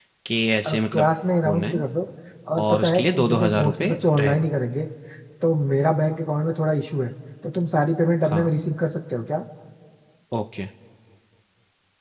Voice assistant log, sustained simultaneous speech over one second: present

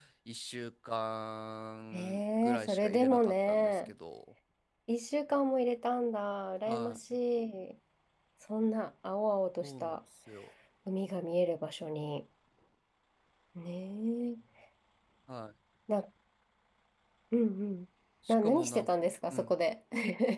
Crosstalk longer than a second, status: present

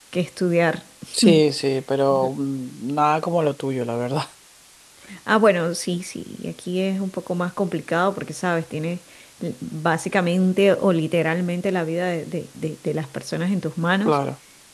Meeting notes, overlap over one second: none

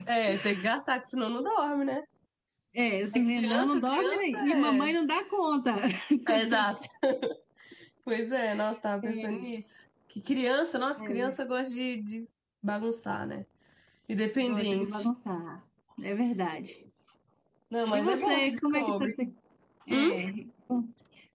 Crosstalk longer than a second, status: present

